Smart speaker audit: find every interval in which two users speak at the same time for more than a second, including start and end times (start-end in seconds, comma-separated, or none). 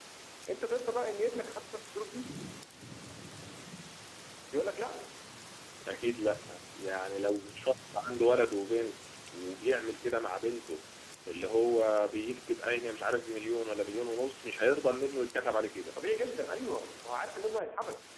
none